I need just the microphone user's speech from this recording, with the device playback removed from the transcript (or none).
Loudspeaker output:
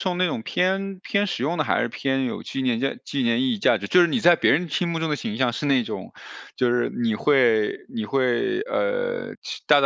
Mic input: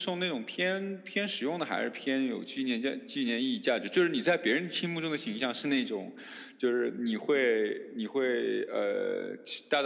none